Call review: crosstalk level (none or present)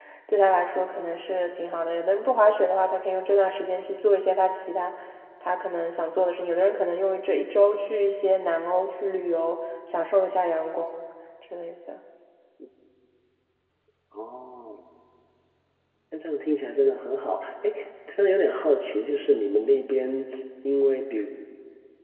none